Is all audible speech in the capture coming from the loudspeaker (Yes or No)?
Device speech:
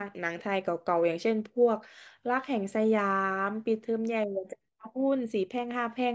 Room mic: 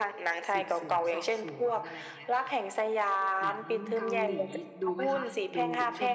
No